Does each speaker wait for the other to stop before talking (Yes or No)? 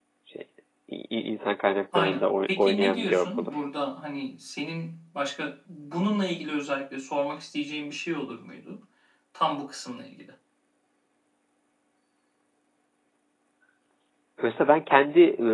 No